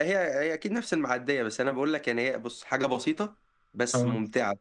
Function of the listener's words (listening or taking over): listening